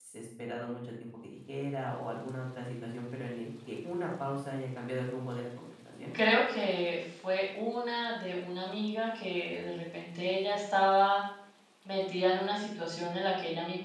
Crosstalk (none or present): none